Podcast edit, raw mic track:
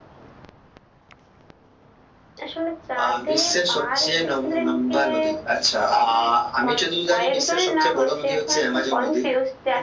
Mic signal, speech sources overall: echo only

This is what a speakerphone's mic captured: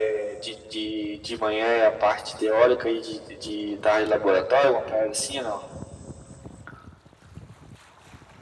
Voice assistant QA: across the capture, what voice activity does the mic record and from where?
echo only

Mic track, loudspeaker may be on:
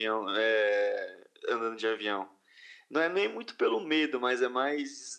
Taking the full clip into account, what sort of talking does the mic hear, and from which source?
echo only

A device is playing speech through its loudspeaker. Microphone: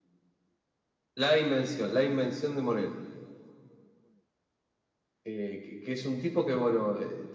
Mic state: echo only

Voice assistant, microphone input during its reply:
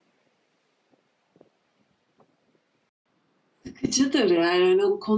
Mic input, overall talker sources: user only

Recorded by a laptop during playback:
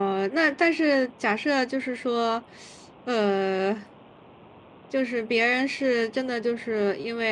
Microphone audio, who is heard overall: user only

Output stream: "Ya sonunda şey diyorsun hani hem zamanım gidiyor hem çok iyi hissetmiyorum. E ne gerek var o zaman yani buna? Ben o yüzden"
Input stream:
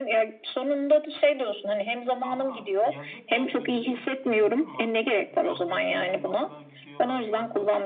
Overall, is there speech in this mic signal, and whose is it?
both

